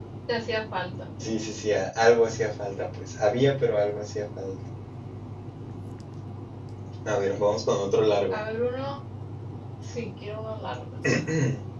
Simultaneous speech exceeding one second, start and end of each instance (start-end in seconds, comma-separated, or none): none